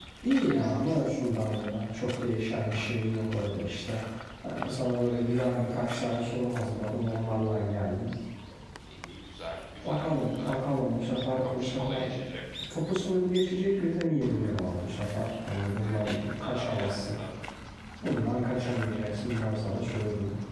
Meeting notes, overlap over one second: present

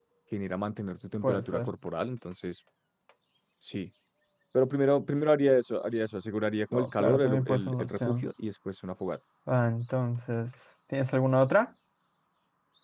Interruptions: present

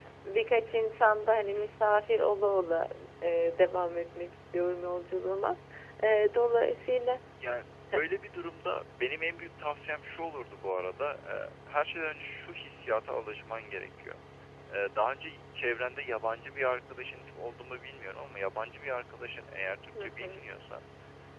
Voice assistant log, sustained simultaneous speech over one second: none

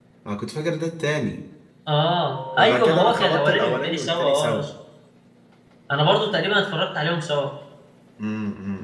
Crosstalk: present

